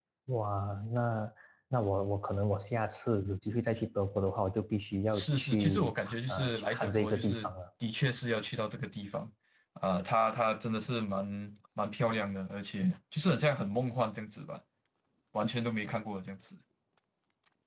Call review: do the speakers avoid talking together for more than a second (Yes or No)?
No